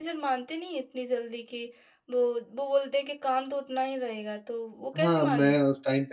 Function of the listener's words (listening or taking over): taking over